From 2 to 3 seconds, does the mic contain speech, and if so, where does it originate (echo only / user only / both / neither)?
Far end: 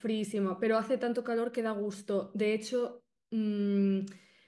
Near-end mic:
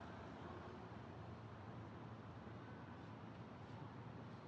neither